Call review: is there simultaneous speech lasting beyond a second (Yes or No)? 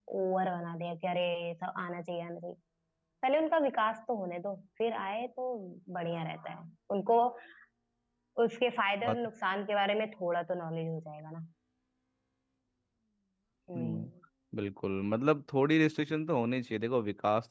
No